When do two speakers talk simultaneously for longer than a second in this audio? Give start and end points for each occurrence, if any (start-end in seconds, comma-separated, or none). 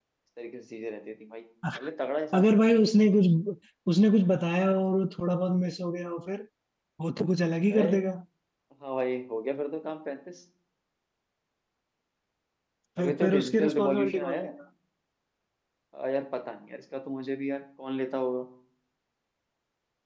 13.0-14.5